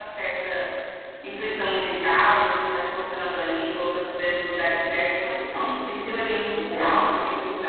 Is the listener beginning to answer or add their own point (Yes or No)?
No